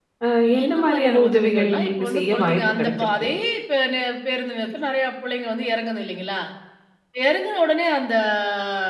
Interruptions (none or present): present